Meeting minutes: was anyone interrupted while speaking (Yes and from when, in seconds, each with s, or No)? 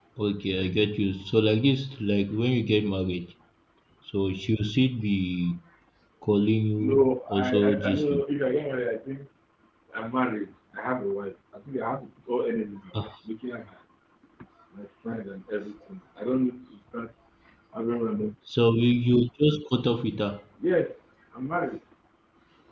Yes, from 6.8 s